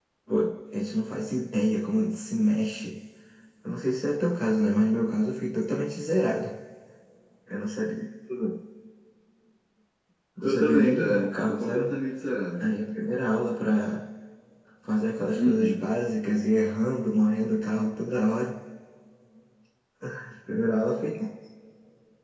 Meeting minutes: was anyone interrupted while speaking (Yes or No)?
Yes